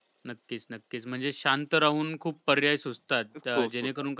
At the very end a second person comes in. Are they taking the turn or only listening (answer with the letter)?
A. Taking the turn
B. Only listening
B